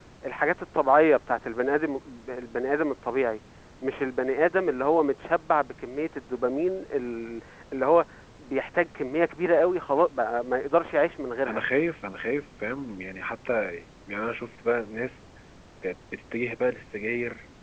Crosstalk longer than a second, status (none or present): none